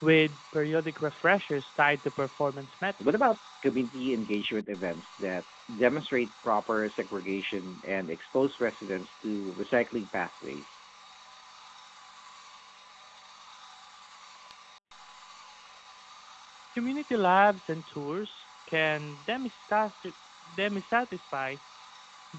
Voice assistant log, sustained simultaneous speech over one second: none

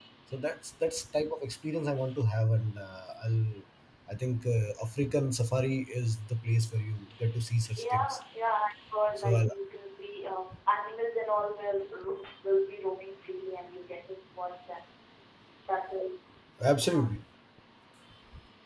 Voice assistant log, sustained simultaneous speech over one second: none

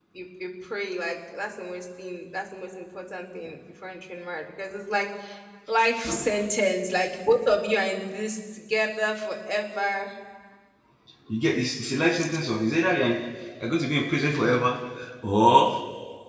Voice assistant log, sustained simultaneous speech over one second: none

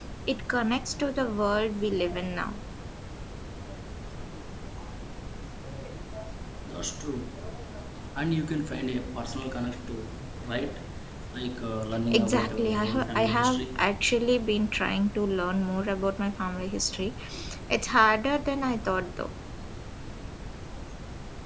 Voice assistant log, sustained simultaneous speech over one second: present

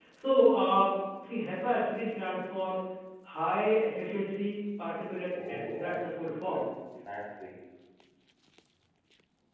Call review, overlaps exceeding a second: present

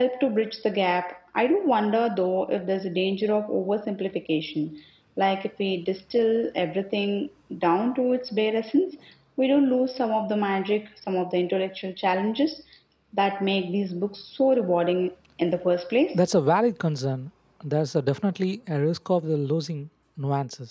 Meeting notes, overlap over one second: none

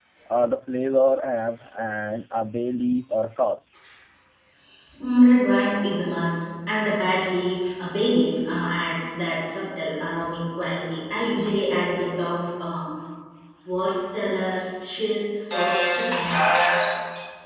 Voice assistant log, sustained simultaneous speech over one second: none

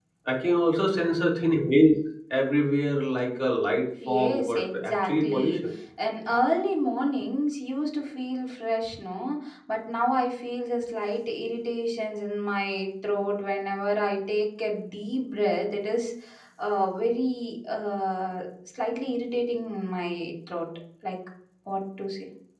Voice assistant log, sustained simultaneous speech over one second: present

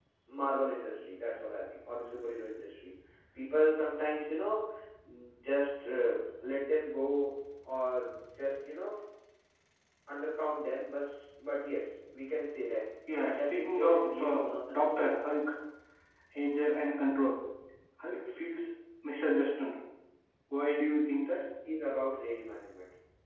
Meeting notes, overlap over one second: present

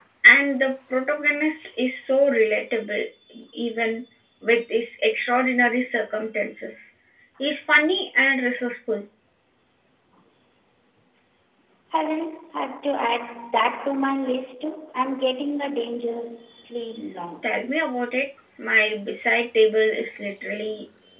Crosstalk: none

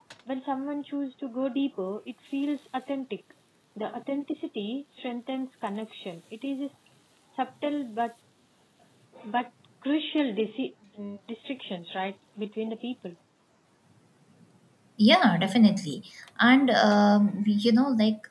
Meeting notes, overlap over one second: none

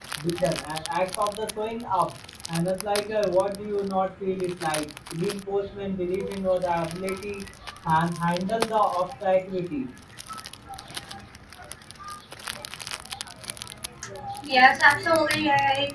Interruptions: none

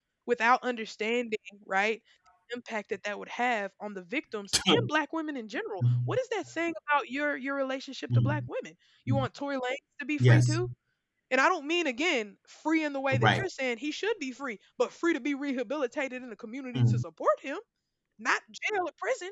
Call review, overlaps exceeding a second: none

